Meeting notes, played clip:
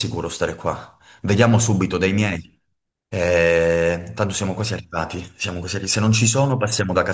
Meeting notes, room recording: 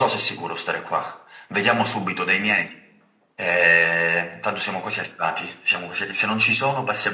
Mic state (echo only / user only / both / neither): echo only